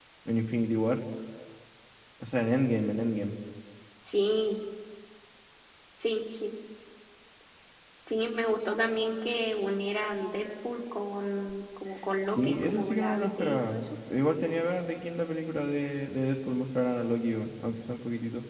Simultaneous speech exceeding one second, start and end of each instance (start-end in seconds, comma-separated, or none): 12.2-13.8